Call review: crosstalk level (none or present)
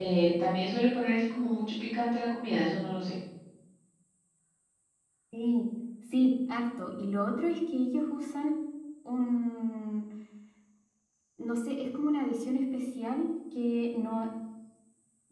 none